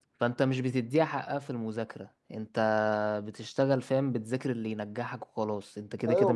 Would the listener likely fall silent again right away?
No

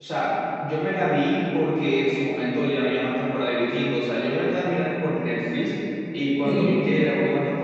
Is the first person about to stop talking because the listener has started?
No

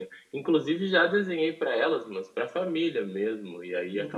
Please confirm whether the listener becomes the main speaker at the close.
No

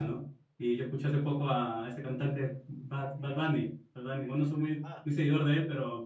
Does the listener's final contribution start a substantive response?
No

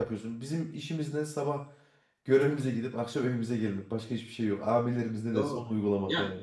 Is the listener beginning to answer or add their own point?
Yes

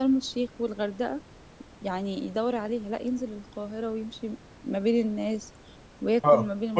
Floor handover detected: Yes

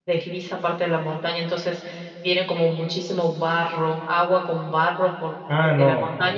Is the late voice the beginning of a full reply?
Yes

